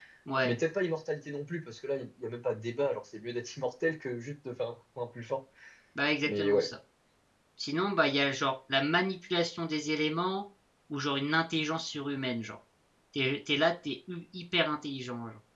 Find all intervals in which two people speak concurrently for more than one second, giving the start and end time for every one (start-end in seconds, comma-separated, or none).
none